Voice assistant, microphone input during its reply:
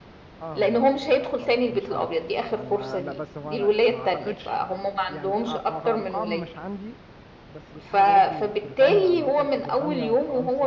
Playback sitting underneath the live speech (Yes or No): No